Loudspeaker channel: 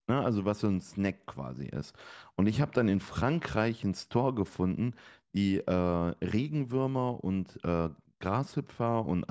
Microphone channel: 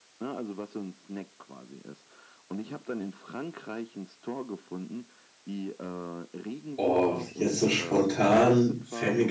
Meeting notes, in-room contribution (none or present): present